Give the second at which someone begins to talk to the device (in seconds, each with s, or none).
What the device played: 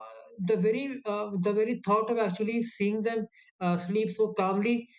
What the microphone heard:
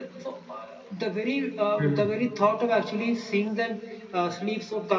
1.8 s